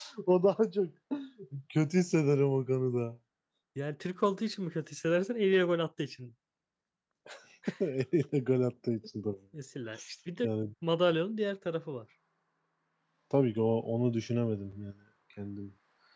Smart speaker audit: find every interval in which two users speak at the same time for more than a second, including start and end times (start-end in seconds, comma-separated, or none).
none